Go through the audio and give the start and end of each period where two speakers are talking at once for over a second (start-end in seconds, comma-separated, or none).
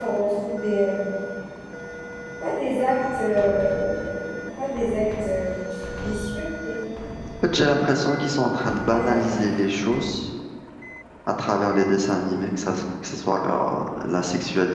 none